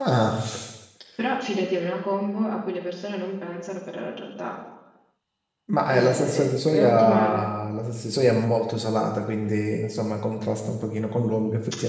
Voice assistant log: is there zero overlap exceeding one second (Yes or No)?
No